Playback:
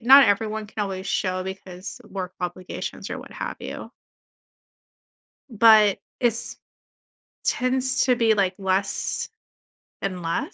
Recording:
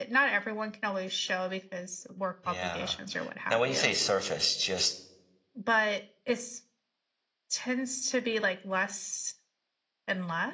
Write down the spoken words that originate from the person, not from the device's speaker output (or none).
yeah. Now when you say surface, just